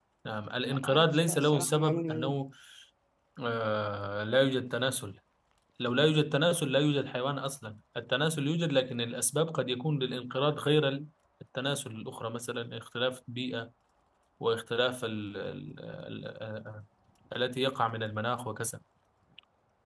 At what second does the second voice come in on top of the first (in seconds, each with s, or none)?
0.7 s